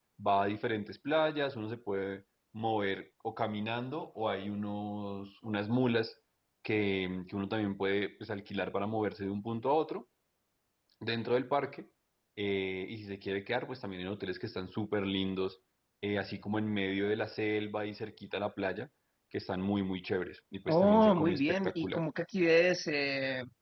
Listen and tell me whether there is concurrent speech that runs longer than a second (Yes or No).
Yes